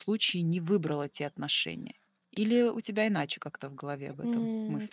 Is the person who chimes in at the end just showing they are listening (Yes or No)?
No